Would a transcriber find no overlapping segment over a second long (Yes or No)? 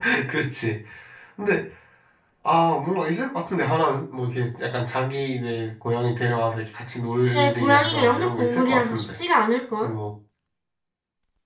No